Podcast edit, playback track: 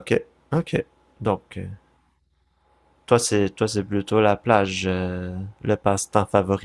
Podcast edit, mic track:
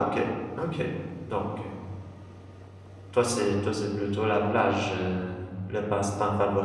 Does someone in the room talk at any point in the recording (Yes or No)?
No